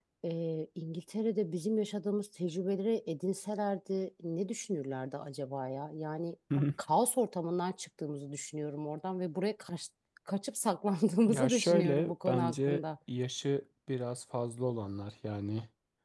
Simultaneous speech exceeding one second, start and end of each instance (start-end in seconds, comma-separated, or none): 11.2-12.8